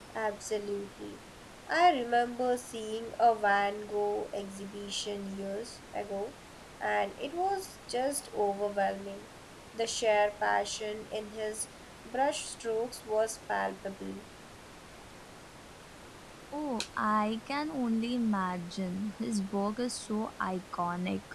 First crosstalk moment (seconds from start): none

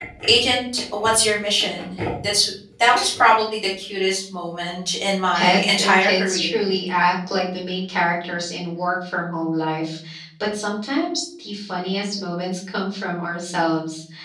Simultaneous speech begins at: 5.3 s

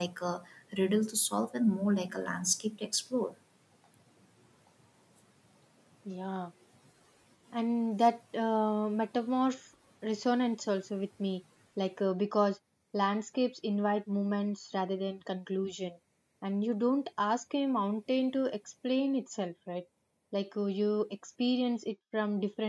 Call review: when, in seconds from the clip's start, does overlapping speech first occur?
none

